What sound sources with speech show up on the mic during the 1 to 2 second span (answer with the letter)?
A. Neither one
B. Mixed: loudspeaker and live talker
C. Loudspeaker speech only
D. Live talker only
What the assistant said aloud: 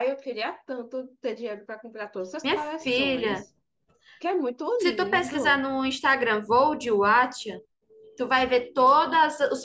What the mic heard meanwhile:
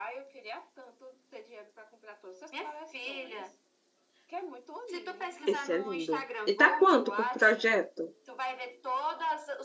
C